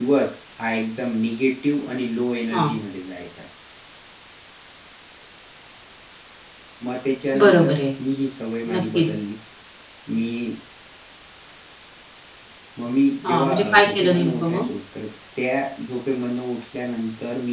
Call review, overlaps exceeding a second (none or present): present